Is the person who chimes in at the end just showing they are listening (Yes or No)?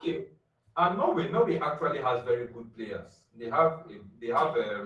Yes